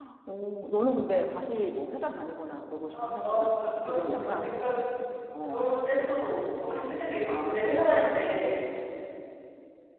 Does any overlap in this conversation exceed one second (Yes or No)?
Yes